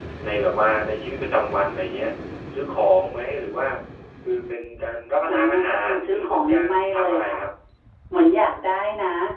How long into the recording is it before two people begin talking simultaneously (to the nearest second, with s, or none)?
5 s